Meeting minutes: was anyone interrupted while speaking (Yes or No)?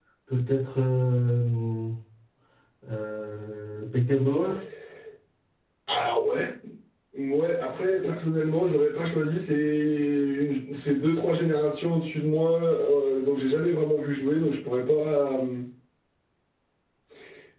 No